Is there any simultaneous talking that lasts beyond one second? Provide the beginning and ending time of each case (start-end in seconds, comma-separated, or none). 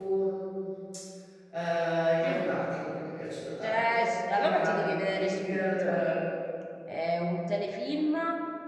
3.6-6.0